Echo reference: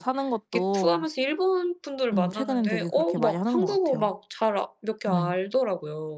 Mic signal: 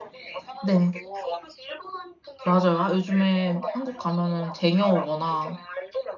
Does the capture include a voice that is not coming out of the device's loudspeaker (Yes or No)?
Yes